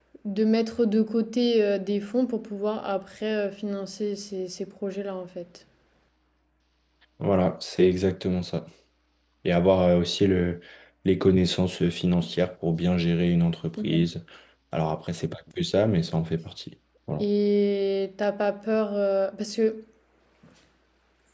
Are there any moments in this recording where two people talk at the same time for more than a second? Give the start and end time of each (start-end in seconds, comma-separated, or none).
none